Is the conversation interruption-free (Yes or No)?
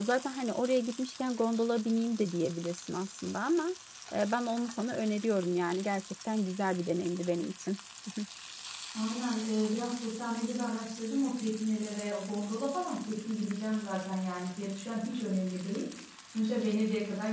Yes